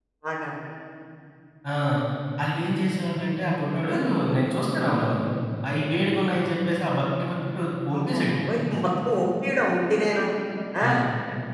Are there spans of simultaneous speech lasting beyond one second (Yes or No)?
No